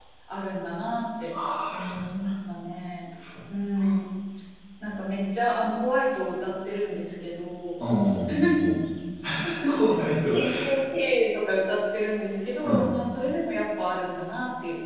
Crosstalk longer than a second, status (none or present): none